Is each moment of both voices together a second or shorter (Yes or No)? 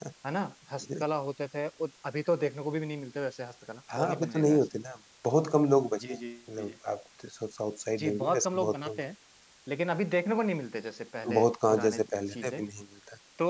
No